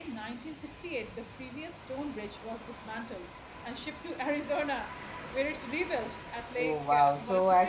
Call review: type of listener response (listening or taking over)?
taking over